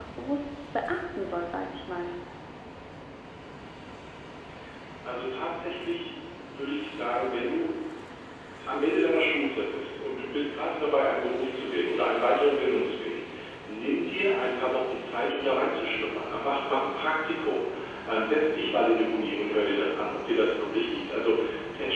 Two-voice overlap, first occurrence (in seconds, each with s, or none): none